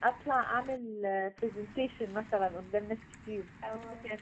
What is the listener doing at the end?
listening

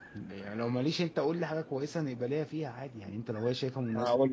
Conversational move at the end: taking over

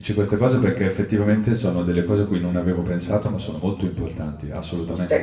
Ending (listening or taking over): taking over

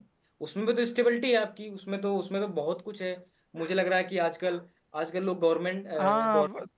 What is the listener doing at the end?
taking over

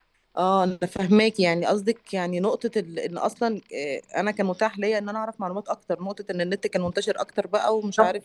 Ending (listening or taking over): taking over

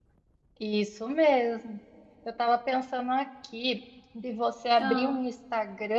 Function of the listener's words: listening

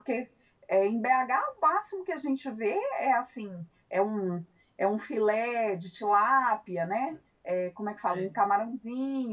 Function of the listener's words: listening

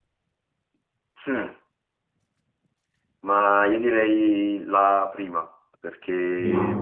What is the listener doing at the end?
listening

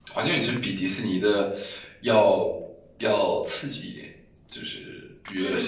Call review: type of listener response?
taking over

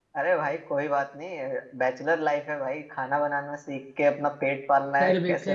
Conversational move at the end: taking over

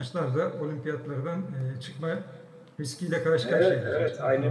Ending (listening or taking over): taking over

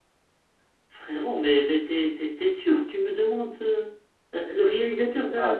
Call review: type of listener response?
taking over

